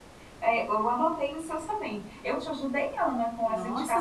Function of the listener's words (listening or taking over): taking over